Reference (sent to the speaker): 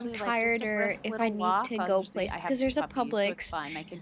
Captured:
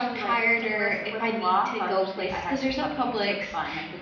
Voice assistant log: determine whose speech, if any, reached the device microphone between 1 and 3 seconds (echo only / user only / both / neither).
echo only